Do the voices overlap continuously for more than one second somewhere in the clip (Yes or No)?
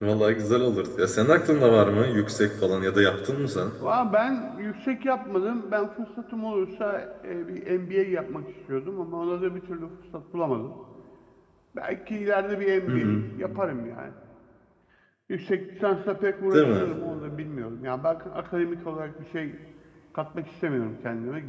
No